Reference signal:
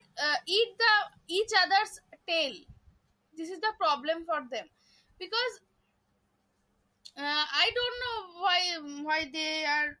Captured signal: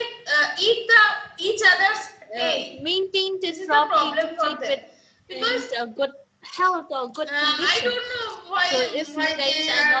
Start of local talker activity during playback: 2 s

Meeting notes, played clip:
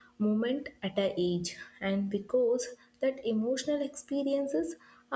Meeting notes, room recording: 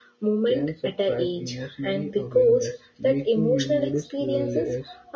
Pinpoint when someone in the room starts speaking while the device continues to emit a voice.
0 s

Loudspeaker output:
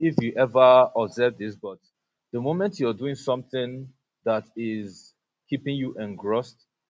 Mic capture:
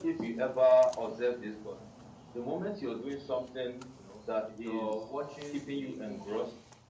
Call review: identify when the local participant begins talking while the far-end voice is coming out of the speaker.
4 s

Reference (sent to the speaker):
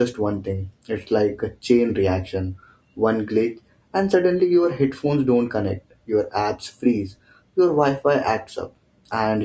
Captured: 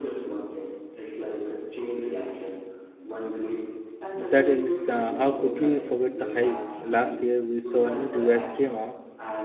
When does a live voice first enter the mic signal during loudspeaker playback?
4 s

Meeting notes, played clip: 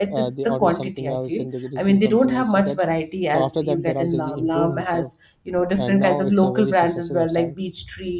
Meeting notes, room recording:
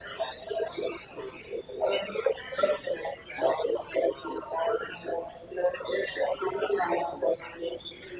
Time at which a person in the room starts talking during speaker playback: none

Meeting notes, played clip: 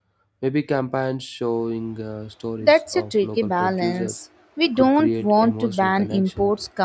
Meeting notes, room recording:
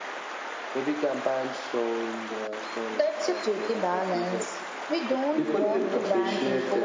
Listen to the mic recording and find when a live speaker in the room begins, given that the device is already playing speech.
5 s

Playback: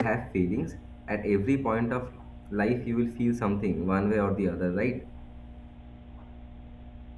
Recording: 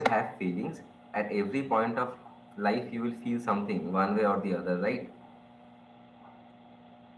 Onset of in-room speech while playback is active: none

